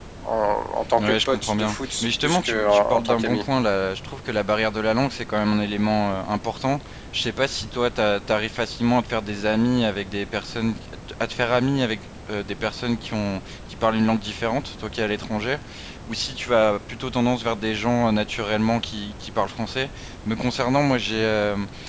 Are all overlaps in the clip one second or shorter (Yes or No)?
No